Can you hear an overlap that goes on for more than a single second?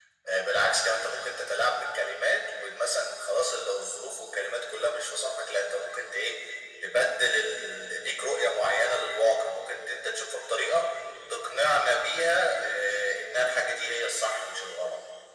No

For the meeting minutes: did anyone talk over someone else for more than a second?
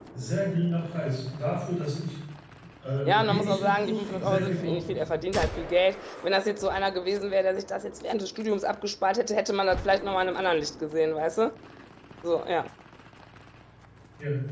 Yes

